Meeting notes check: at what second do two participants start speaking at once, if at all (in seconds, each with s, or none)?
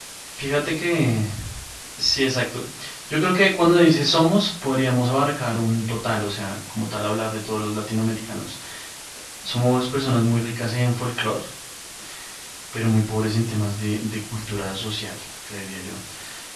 none